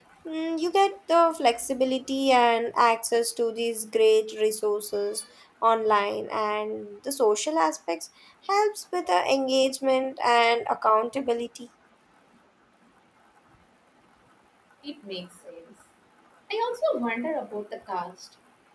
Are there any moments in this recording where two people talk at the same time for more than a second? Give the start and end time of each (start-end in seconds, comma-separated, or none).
none